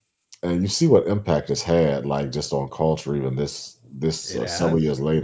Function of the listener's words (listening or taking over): listening